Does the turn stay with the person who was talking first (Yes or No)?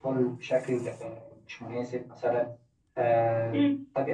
No